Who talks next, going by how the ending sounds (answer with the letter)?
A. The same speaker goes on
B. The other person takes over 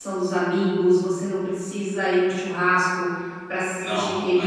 A